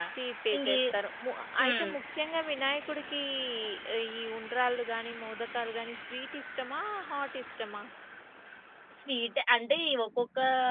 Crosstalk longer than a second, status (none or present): none